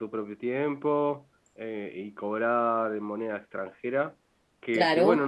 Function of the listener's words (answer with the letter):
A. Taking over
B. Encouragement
B